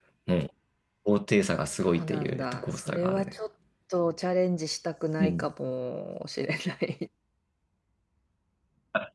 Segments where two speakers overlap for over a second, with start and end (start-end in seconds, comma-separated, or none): 1.9-3.3